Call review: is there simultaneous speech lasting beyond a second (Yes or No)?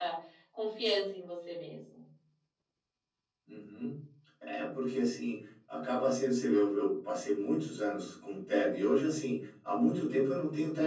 No